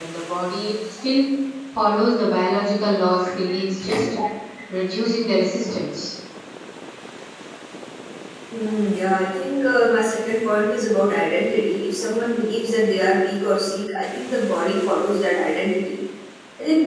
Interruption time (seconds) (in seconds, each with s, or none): none